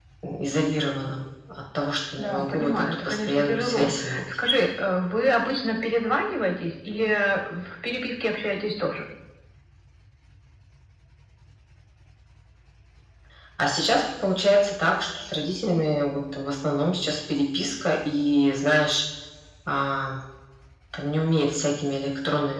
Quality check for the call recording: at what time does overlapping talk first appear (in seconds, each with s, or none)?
2.2 s